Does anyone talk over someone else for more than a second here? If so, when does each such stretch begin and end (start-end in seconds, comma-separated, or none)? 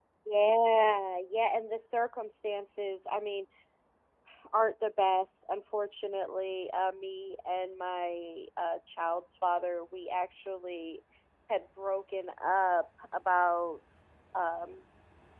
none